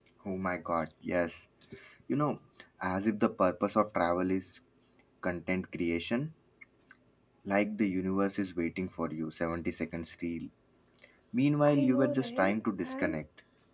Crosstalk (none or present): present